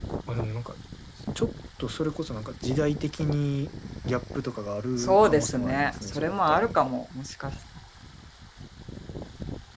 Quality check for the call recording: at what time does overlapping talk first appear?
5.0 s

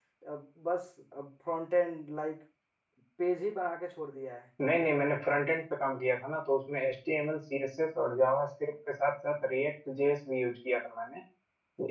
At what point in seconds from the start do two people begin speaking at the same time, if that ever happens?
none

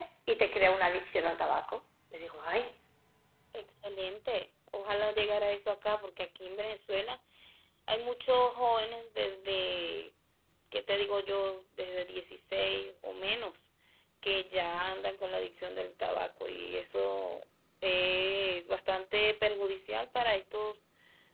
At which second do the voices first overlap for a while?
none

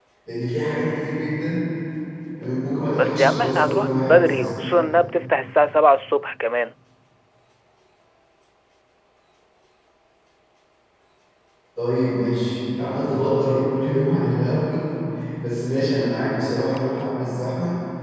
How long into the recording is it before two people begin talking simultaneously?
3.0 s

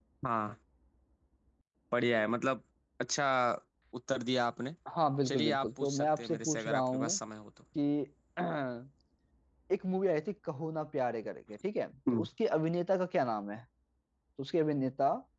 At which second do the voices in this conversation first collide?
5.2 s

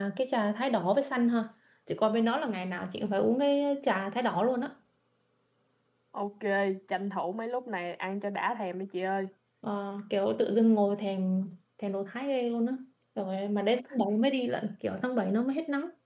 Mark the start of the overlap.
none

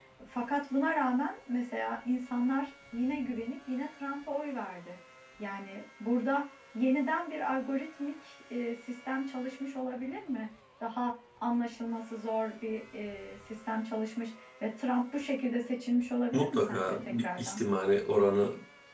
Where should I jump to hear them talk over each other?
16.3 s

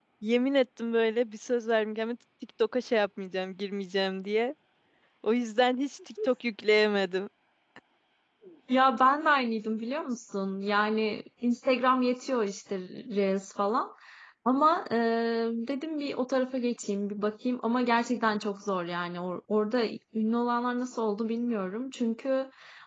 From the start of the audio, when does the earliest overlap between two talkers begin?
none

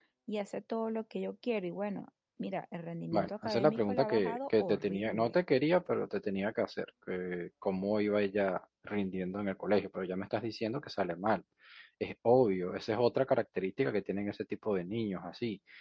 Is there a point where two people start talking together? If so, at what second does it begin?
3.1 s

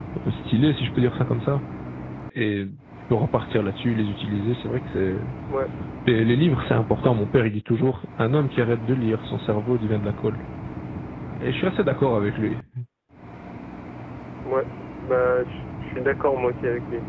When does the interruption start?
none

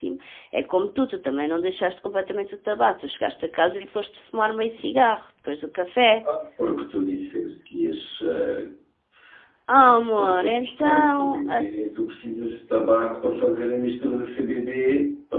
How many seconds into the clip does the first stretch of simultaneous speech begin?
9.7 s

